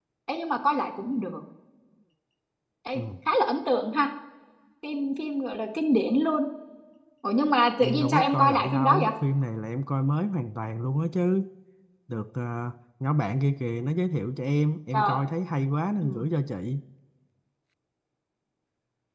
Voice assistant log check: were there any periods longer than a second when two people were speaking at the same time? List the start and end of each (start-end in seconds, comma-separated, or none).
7.8-9.1